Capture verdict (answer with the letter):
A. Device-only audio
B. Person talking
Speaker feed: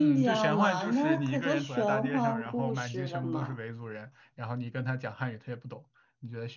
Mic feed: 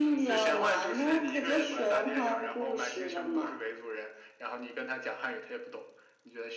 A